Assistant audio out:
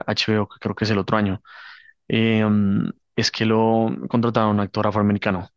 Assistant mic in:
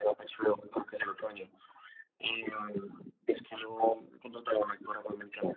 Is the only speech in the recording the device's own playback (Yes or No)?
Yes